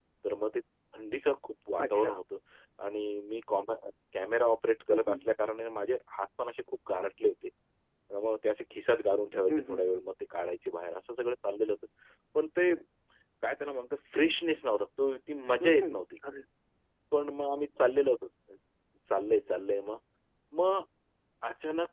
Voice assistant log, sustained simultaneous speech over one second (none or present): none